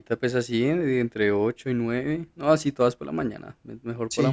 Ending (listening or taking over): taking over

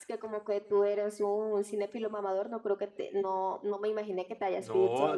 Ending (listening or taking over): taking over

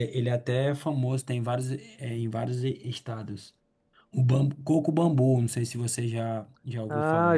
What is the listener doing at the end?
taking over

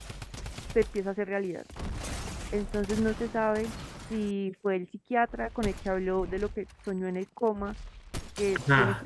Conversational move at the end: taking over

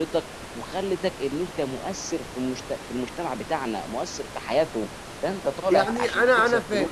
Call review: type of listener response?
taking over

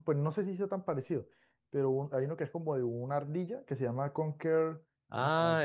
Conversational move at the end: taking over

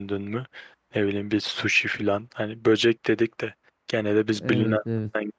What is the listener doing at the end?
listening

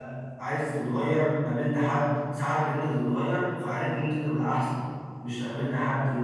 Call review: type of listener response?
listening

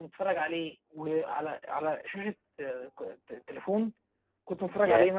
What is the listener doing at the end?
listening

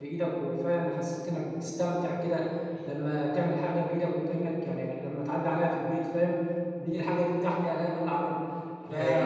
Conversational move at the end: listening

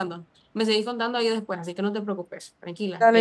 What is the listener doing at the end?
taking over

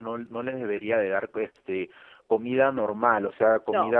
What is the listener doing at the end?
listening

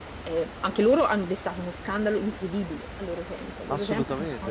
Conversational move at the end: taking over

